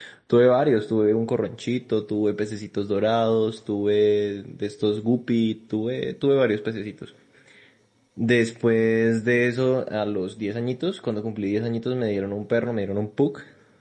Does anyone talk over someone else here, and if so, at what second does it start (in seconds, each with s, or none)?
none